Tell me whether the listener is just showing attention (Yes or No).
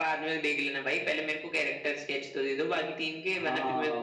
No